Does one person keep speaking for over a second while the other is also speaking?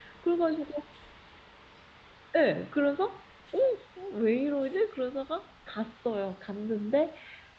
No

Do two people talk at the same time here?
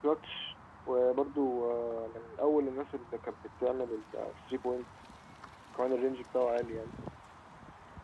No

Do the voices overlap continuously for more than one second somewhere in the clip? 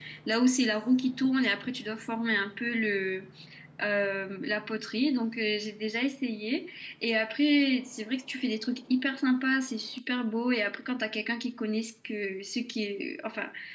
No

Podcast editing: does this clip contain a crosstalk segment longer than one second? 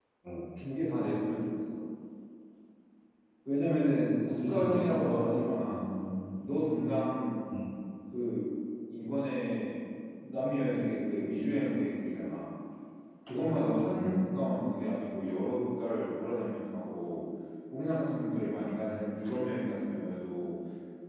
Yes, from 4.5 s

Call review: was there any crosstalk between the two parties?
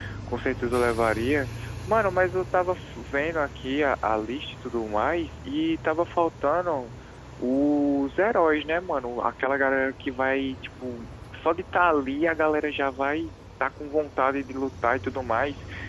No

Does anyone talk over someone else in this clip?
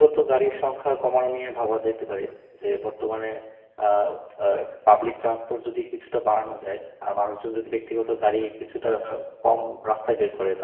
No

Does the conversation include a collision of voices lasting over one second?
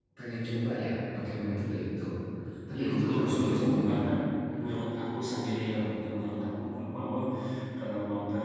Yes, from 2.8 s

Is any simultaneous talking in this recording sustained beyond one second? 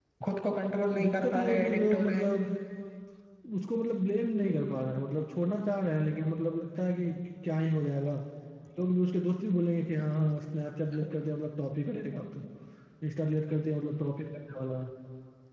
Yes, from 1.0 s

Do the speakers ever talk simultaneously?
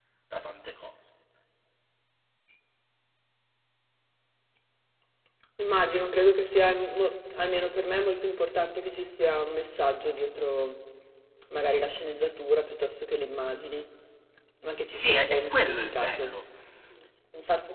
Yes, from 14.9 s

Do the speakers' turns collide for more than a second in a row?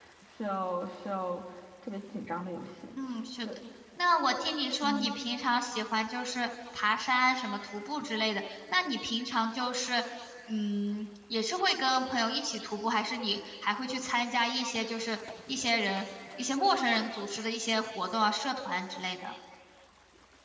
No

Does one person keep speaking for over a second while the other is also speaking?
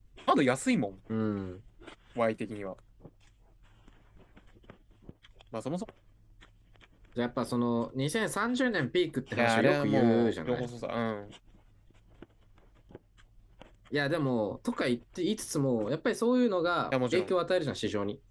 Yes, from 9.4 s

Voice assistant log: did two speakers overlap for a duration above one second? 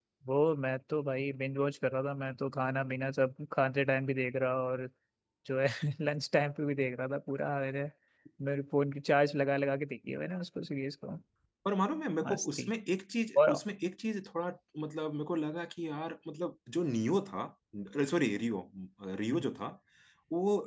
No

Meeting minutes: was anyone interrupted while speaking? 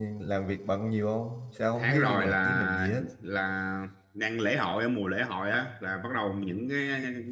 Yes, from 1.8 s

